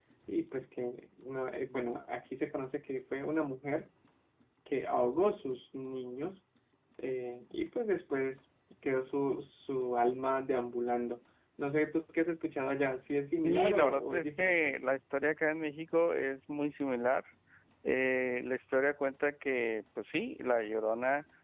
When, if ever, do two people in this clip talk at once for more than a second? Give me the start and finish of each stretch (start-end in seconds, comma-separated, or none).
13.4-14.7